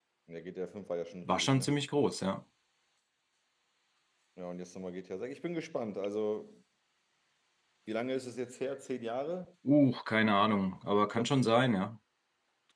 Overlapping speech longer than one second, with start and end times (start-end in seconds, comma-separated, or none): none